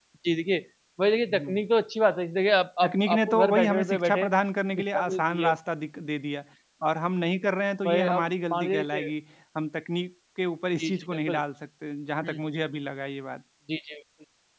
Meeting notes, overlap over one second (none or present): present